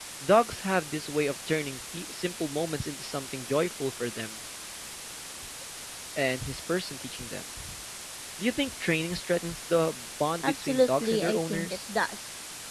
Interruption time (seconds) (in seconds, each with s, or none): 10.4 s